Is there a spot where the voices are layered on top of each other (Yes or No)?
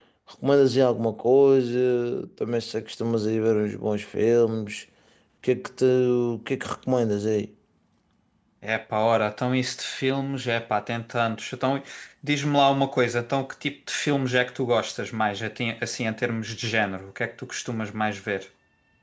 No